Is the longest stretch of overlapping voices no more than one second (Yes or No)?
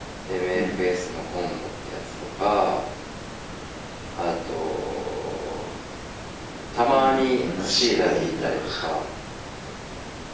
No